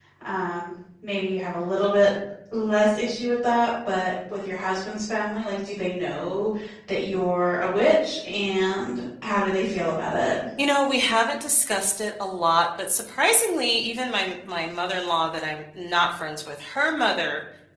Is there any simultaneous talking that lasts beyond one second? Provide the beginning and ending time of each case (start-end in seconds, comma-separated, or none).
none